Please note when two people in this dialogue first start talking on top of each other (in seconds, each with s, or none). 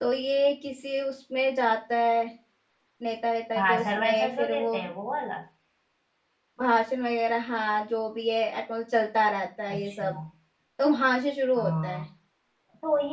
3.5 s